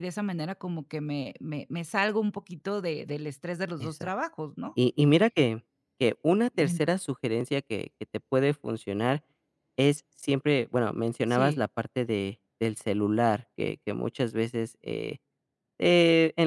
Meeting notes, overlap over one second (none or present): none